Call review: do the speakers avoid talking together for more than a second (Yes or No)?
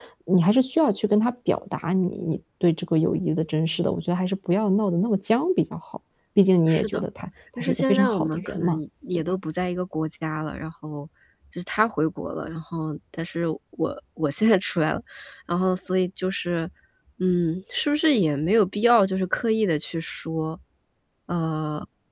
No